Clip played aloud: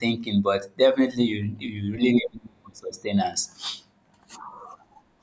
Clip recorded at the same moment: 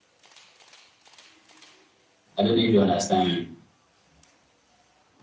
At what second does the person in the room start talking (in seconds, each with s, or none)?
2.4 s